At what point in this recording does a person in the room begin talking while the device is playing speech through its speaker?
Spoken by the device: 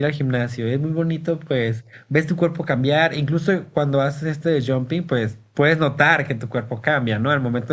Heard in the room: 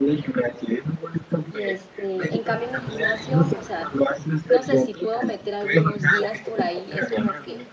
1.5 s

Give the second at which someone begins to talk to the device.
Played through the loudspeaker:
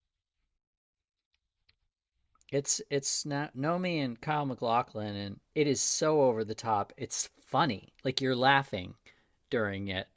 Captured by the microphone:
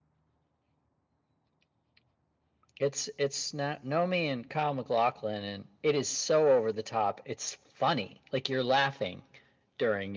none

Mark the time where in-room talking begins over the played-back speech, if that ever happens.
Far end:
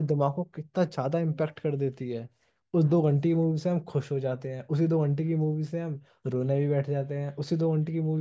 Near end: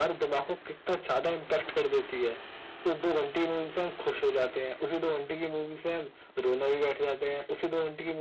none

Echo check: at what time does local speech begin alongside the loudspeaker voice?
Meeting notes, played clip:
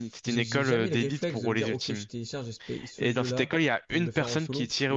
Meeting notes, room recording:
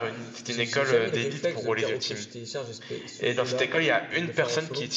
none

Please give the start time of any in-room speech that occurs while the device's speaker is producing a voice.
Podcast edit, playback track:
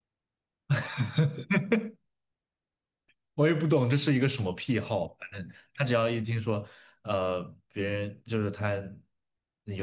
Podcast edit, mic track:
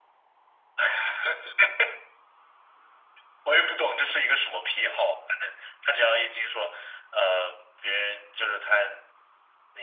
none

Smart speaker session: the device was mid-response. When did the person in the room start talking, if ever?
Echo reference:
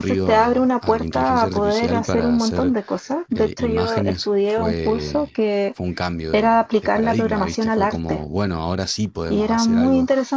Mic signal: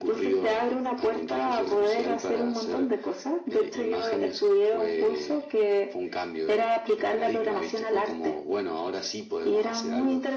none

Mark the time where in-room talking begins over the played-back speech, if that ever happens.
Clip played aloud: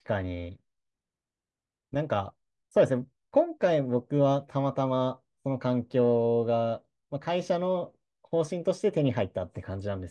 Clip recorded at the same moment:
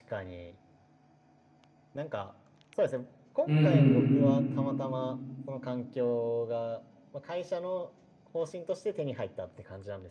3.4 s

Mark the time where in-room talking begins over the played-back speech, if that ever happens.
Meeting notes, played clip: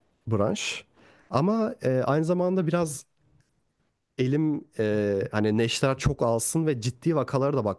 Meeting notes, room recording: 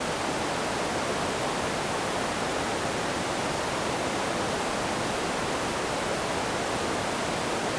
none

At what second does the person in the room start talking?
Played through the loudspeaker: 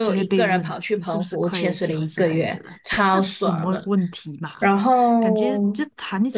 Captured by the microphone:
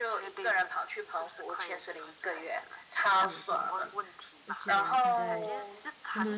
3.2 s

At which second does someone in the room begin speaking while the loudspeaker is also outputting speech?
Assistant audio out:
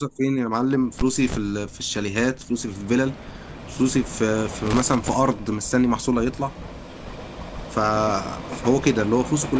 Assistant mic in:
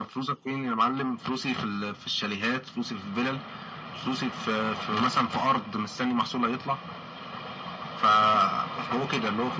none

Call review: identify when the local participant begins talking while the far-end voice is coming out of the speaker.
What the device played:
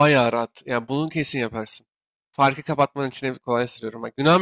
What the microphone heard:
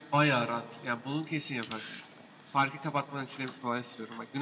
none

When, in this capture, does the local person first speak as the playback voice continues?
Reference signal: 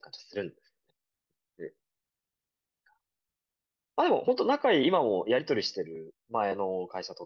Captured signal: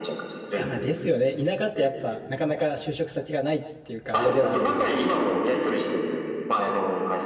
0.5 s

